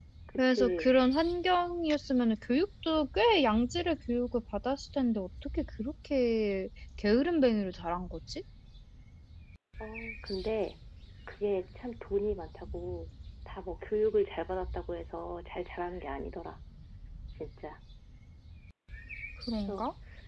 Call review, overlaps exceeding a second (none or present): none